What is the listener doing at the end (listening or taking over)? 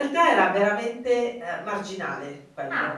listening